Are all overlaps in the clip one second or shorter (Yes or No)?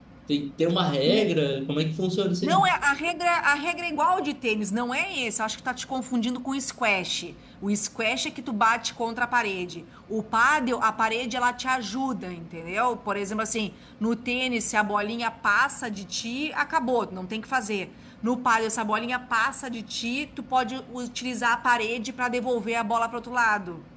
Yes